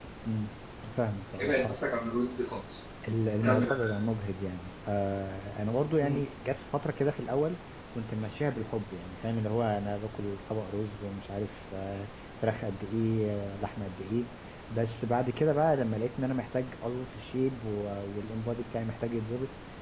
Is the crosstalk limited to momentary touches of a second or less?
Yes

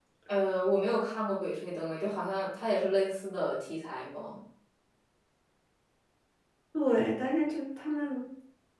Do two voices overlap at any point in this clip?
No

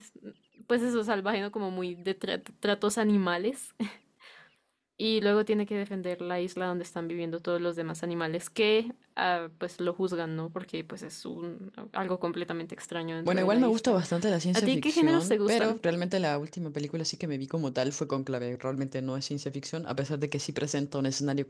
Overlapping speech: Yes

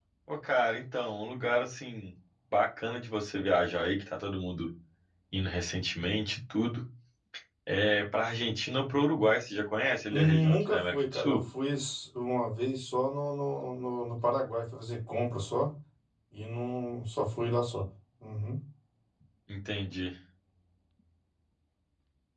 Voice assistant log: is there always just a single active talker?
No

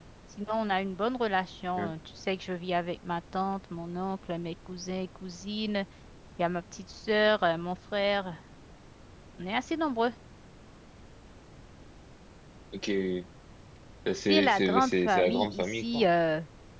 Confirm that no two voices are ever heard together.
No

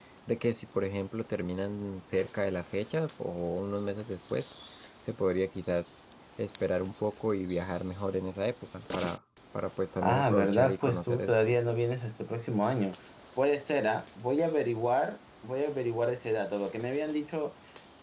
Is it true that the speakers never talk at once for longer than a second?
No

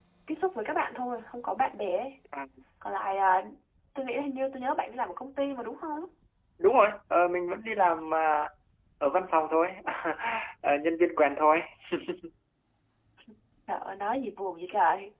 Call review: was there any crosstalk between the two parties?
No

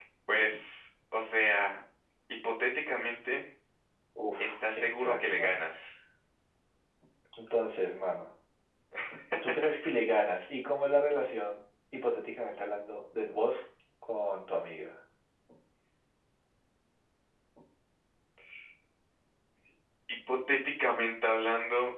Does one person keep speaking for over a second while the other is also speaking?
Yes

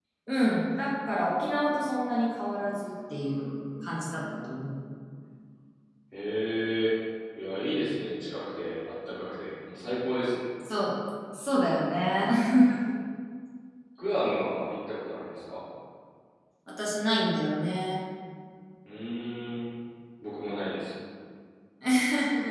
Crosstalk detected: No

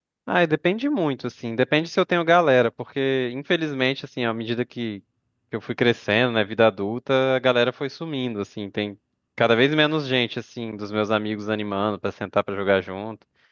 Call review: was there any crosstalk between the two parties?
No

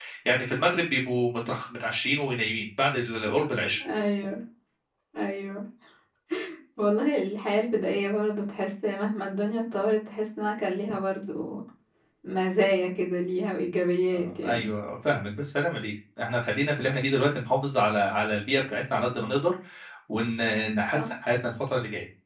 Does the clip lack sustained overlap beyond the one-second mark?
Yes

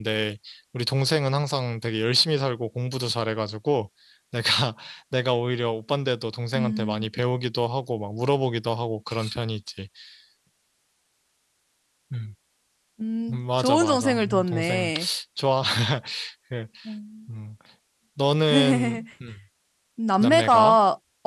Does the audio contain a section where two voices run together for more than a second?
Yes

